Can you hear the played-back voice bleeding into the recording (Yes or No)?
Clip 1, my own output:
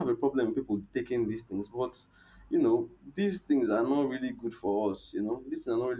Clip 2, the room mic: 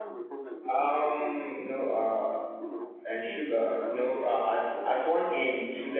Yes